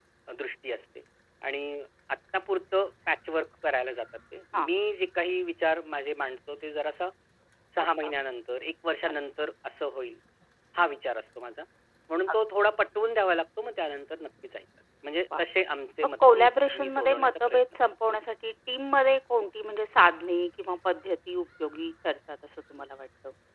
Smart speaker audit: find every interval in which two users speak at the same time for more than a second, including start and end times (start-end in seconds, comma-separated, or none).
16.0-17.9